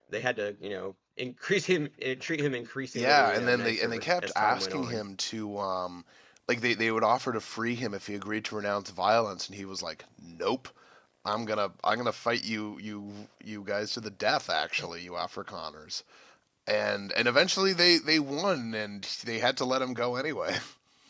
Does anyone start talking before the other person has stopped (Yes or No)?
Yes